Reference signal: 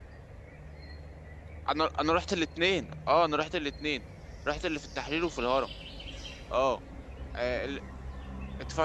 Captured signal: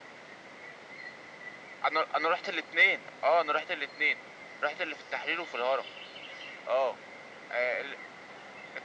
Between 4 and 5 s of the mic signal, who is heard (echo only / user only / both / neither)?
echo only